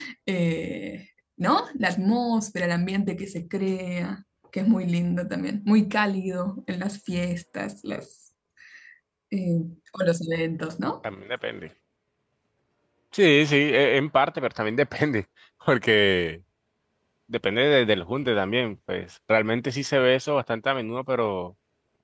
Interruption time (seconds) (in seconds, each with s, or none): none